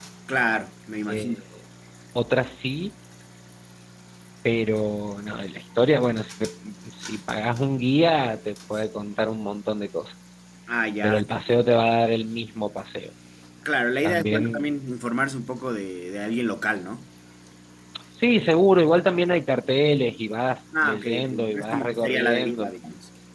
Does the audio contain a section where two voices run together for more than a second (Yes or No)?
Yes